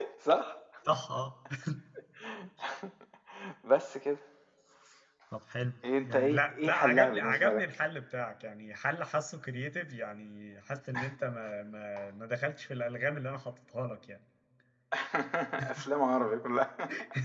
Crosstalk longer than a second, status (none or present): present